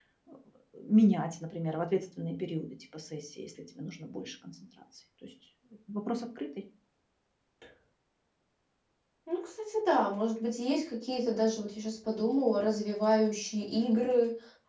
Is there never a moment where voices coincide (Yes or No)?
Yes